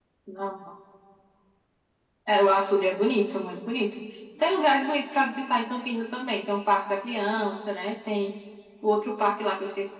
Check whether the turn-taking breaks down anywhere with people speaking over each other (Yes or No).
No